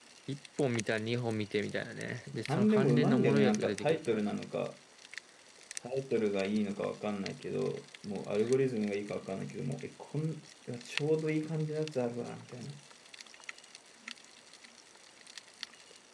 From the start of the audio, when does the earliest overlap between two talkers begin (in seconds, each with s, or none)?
2.3 s